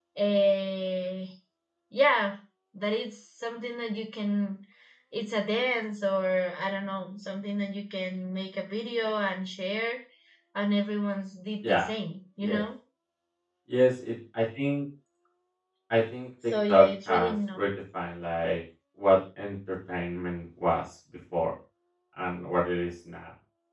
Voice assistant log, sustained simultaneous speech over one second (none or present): present